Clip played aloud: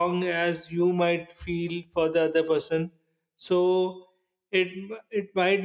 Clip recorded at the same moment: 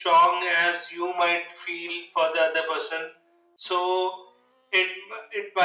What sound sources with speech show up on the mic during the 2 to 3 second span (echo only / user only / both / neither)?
echo only